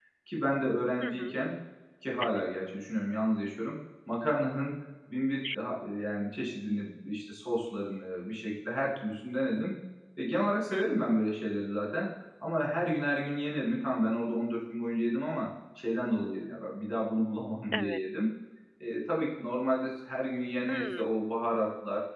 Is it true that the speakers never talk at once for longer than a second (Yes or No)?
Yes